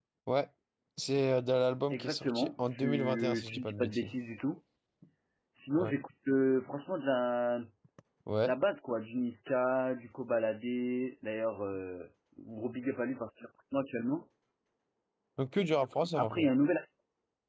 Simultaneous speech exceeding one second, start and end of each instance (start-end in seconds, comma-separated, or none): 1.9-4.1